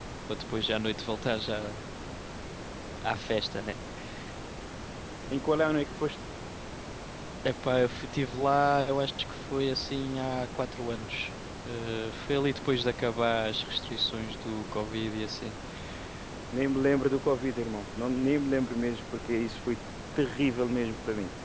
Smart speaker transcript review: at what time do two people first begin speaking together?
none

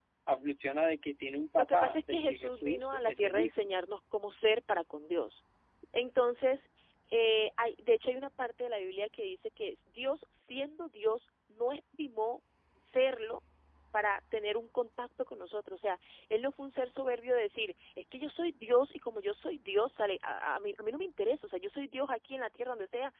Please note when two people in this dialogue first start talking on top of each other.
1.6 s

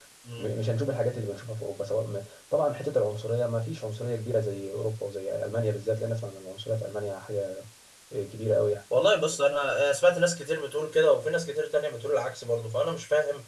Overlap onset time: none

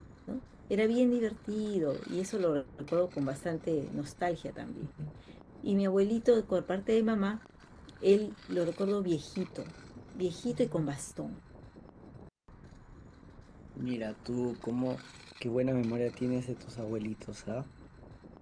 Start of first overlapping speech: none

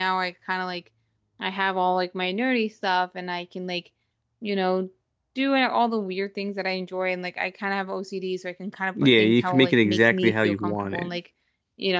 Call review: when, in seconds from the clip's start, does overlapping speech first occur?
8.9 s

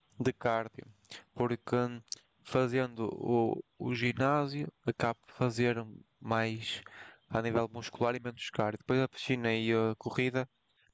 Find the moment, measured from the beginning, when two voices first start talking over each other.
none

